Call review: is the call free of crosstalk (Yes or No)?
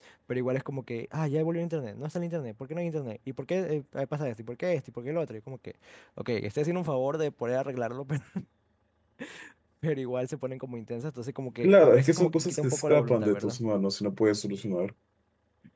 No